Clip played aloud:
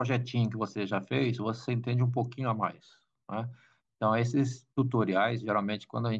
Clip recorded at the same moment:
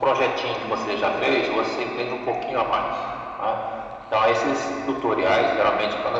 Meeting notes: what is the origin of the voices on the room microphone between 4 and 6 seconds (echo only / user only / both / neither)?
echo only